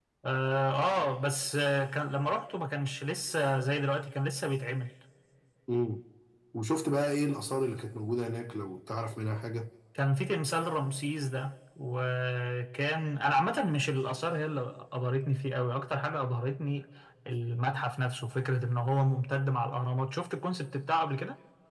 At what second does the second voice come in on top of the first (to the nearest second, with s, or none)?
none